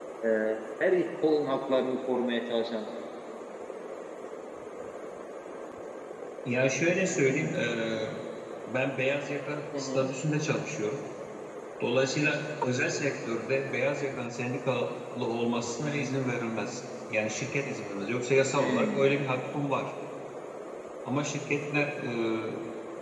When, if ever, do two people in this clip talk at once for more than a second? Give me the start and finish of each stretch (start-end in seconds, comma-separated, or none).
none